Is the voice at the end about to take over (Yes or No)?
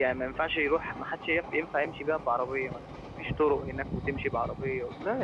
Yes